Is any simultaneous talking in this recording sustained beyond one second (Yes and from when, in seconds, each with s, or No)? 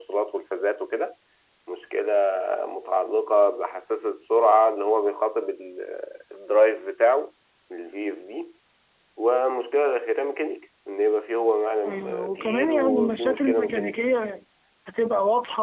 Yes, from 11.8 s